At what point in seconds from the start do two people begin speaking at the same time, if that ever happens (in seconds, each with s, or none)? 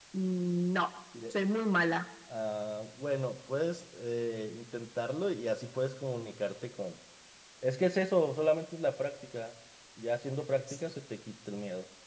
none